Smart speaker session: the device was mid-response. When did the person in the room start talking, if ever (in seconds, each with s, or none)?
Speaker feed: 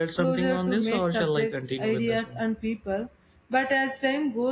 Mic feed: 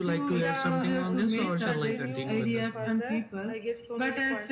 0.4 s